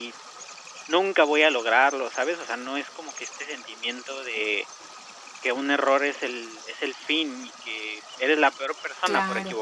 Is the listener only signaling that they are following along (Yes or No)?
No